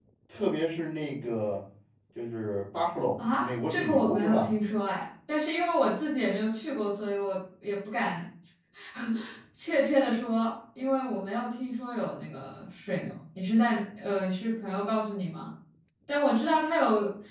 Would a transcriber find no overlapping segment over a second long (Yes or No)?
No